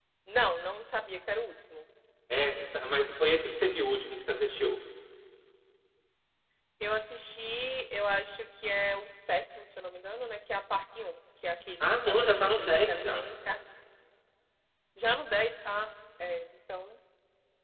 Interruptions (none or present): present